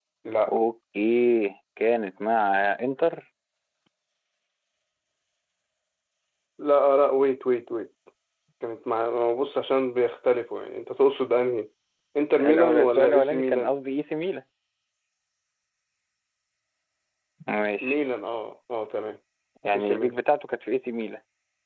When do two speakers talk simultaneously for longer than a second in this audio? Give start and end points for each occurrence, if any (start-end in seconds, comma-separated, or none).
12.4-13.7